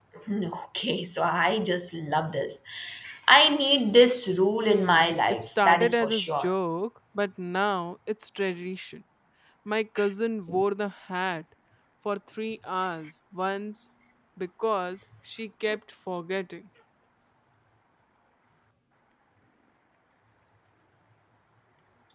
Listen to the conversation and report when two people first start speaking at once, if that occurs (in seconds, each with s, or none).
4.6 s